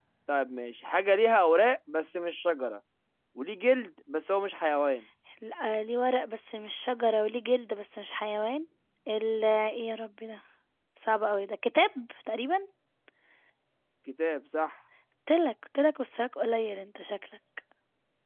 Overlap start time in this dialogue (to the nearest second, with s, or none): none